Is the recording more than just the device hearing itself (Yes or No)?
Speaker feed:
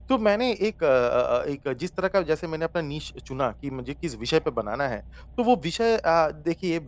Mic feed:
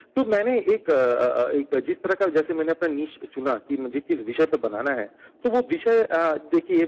No